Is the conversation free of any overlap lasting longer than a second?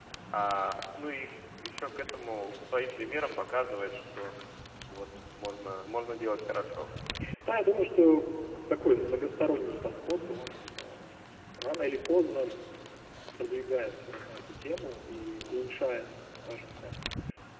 Yes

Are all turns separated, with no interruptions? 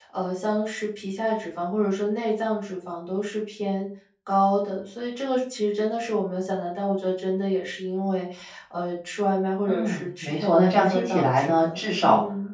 No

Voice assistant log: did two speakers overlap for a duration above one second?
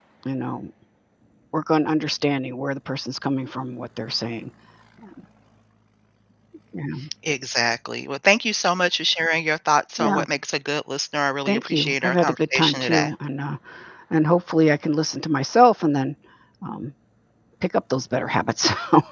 Yes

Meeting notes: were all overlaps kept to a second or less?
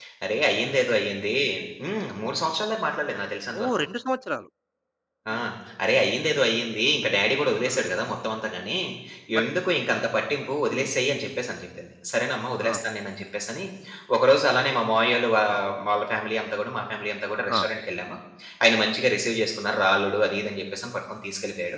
Yes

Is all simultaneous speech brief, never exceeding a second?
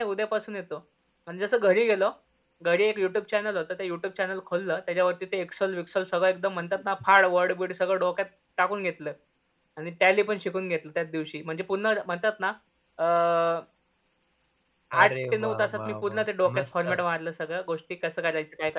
No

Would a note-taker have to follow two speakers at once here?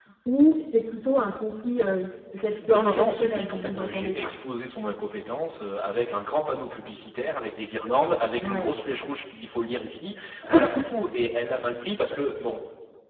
Yes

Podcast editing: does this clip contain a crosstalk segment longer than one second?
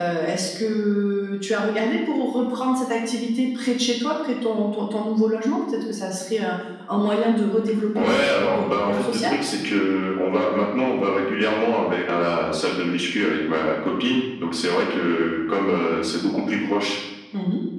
Yes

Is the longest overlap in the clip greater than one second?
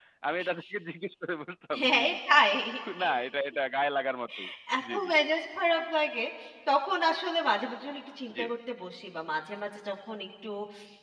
No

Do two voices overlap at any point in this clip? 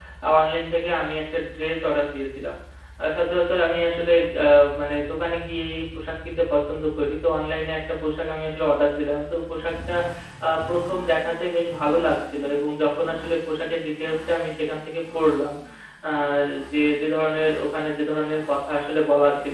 No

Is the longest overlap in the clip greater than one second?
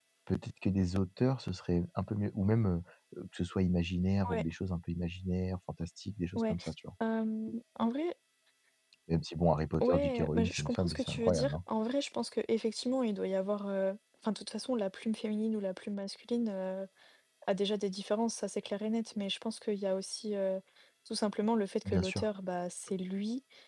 Yes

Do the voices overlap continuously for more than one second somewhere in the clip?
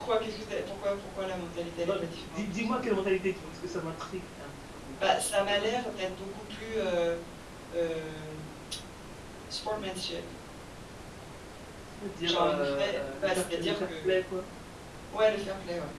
Yes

